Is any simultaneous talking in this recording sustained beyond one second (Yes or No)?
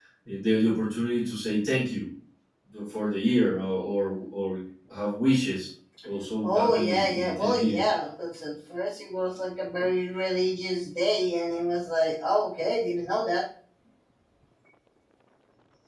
Yes